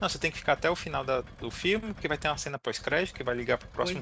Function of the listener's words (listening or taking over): listening